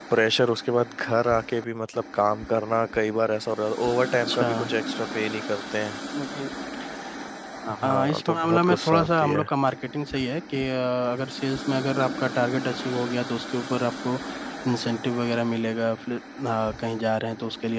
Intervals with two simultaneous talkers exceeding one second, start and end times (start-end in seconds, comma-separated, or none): 7.7-9.4